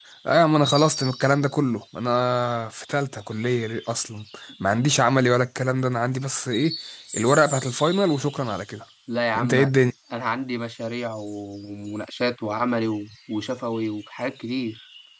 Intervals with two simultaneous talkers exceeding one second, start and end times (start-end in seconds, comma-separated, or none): none